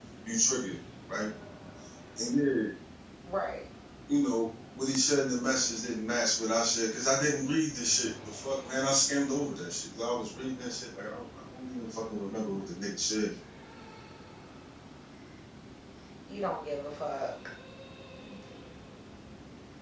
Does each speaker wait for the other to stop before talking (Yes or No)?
Yes